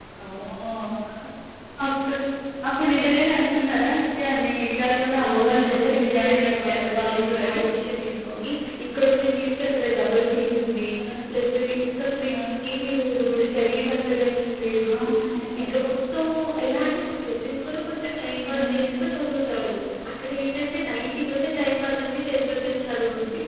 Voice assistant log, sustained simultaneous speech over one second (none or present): present